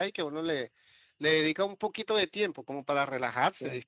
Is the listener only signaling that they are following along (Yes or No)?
Yes